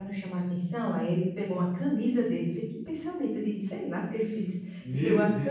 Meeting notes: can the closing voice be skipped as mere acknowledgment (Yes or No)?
Yes